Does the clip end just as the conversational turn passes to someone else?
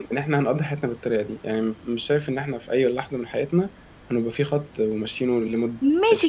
Yes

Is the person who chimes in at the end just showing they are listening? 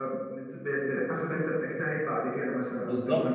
No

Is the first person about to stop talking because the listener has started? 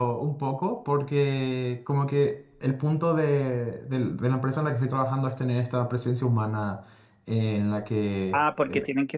Yes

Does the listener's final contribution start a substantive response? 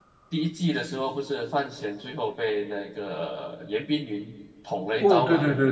Yes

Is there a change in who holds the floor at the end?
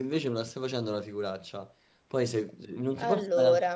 No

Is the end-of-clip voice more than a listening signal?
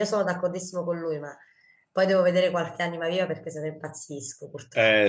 Yes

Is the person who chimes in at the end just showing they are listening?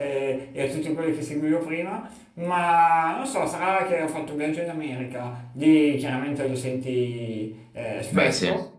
Yes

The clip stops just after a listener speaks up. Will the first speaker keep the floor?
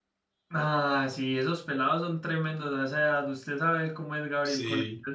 No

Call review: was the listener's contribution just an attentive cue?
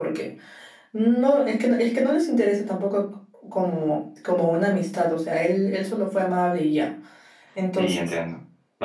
No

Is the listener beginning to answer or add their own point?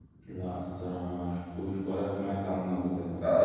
Yes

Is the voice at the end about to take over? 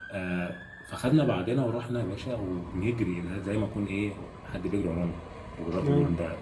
No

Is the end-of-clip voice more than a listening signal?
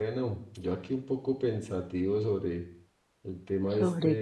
No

